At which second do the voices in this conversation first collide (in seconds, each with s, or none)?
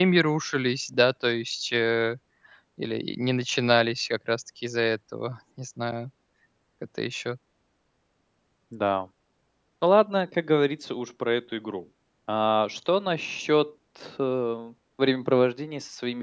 none